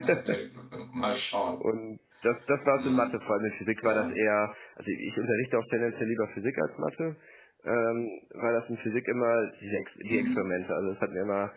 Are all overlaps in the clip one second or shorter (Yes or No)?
Yes